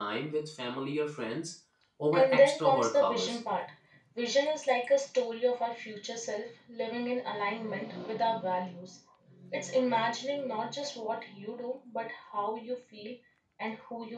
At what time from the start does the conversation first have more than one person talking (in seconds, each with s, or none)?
2.1 s